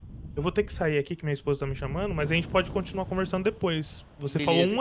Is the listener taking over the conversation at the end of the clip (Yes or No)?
No